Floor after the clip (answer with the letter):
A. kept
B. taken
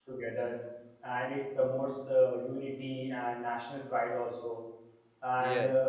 A